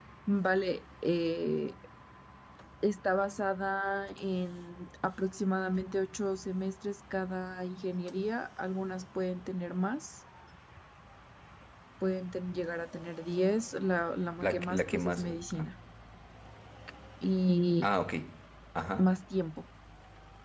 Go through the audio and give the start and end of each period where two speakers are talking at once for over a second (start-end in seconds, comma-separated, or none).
14.4-15.7